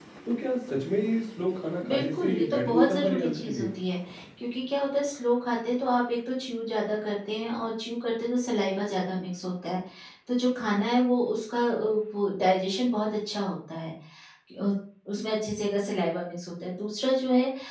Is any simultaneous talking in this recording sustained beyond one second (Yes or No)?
Yes